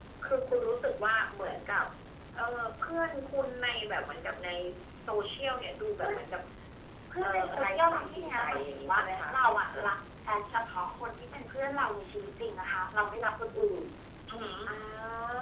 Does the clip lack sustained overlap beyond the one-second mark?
No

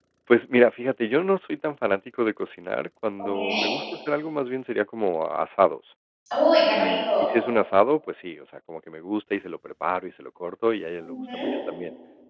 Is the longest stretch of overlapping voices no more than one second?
Yes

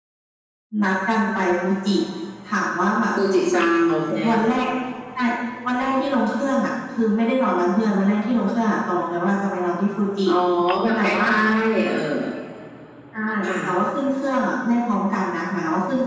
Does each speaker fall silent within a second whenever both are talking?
Yes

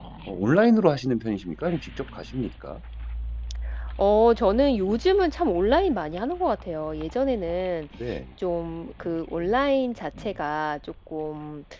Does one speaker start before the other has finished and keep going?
No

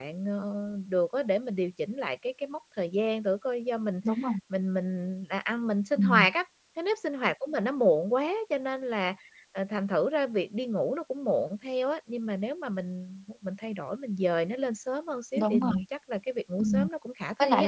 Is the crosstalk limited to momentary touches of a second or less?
Yes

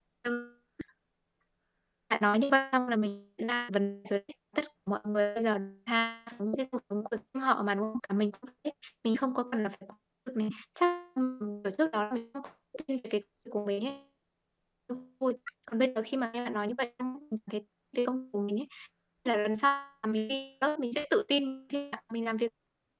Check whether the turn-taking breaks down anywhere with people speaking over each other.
No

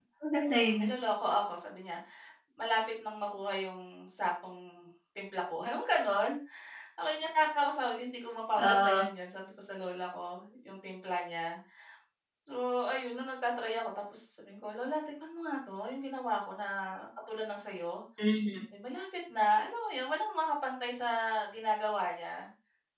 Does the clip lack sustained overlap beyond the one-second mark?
Yes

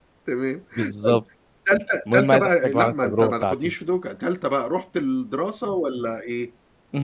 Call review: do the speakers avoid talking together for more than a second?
No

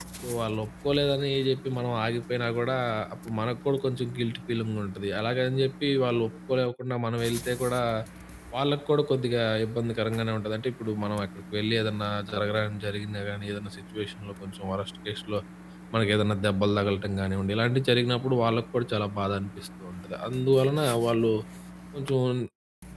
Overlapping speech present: No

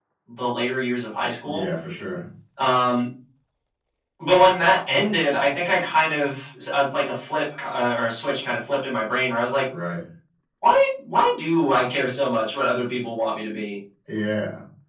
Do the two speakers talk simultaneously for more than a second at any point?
No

